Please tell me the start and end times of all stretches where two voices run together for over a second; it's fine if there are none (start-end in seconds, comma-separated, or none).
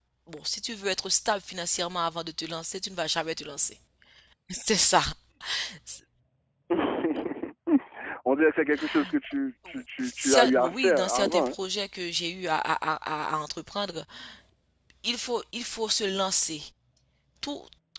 10.0-11.5